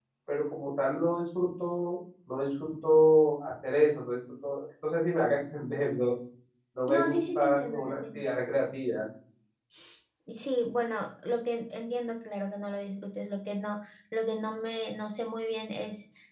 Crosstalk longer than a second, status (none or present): present